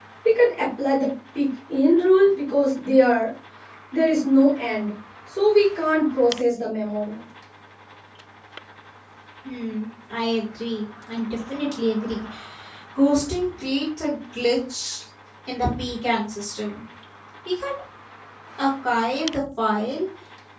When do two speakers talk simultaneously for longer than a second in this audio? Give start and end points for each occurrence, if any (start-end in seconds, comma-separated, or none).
none